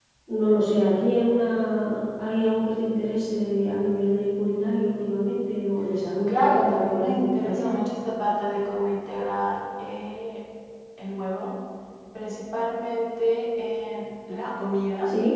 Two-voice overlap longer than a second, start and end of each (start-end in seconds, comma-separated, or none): 6.3-7.8